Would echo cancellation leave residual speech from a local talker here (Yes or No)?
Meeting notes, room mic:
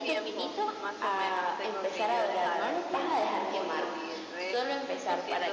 Yes